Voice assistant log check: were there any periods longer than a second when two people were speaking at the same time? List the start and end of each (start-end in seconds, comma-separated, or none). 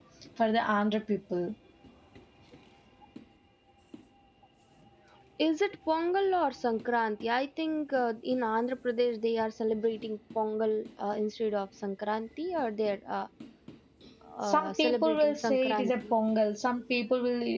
14.4-16.1